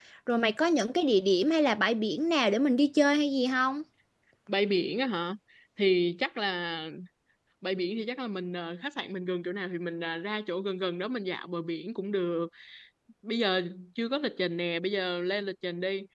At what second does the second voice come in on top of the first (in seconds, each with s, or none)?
none